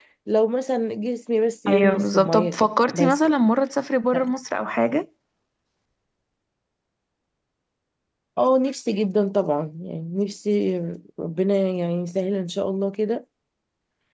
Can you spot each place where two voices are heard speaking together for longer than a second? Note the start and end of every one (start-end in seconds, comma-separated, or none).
1.7-3.2